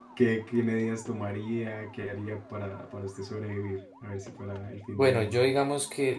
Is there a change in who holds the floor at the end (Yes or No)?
Yes